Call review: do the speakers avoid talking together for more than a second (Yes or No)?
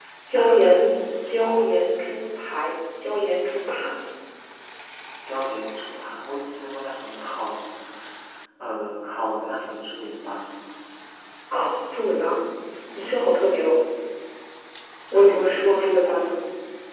No